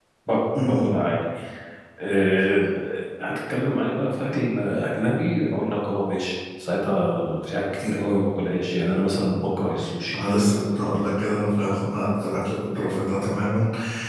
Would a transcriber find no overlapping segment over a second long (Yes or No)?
Yes